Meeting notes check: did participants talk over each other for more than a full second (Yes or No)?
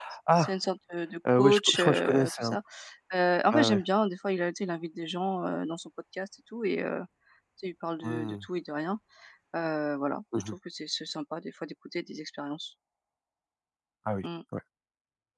Yes